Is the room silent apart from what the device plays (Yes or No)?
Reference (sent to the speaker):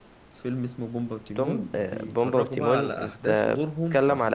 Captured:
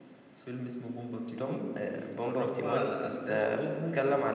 Yes